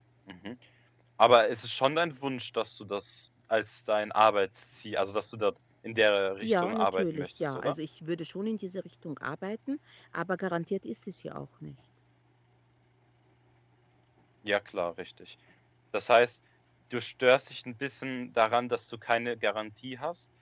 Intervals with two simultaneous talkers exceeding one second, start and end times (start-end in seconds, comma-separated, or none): 6.4-7.7